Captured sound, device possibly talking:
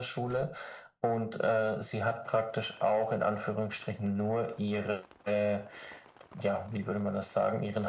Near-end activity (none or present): none